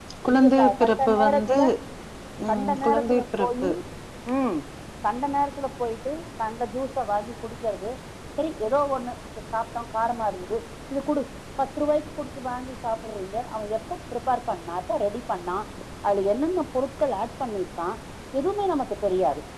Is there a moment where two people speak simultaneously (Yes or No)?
Yes